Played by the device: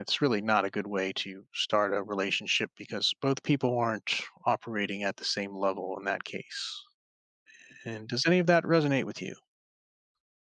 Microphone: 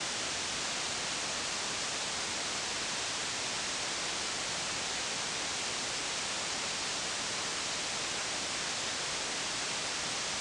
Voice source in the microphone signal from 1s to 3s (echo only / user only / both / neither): neither